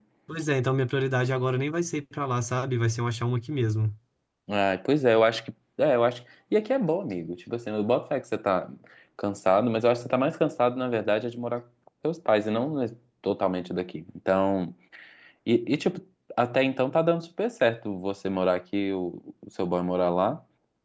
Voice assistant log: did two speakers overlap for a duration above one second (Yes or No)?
No